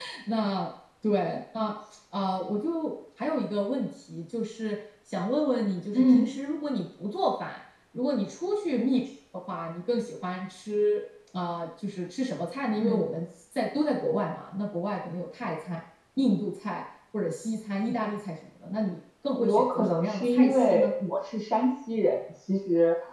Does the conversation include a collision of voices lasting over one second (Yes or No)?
Yes